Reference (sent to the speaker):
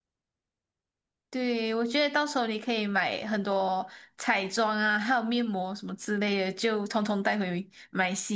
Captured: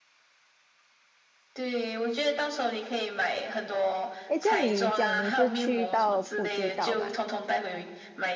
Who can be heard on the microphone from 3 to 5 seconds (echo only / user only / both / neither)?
both